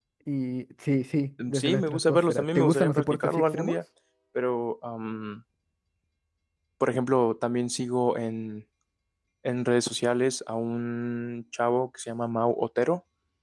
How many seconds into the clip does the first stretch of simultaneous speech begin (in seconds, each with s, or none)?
1.4 s